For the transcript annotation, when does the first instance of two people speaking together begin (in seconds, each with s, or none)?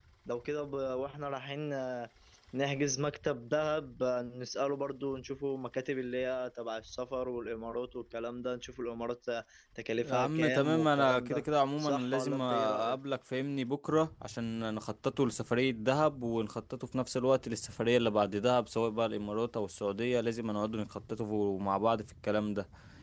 10.0 s